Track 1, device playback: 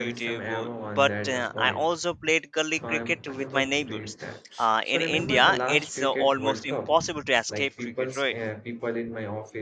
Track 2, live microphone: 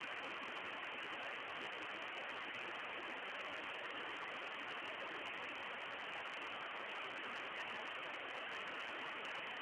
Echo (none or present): none